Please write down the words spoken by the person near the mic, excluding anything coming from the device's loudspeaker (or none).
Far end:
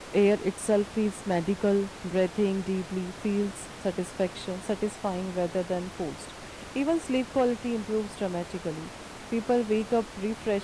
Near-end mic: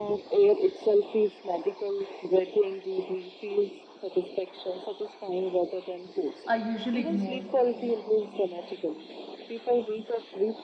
I usually ignore.